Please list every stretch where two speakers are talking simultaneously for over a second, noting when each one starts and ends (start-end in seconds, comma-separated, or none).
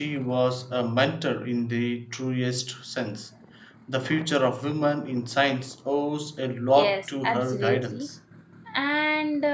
6.7-8.1